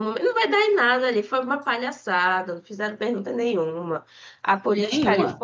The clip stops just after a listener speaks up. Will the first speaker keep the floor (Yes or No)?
Yes